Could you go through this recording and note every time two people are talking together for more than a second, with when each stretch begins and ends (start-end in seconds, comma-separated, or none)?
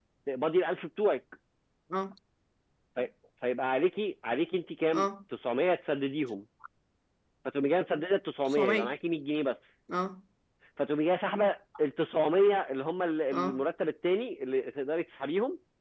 none